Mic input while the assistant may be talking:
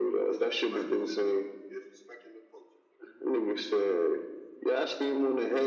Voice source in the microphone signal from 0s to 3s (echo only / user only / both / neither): echo only